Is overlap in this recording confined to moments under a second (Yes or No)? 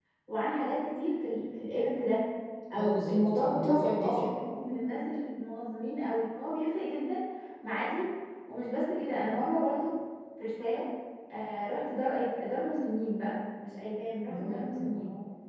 No